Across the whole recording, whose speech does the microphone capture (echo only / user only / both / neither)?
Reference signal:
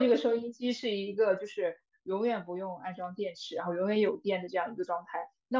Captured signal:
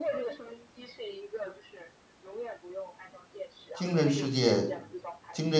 both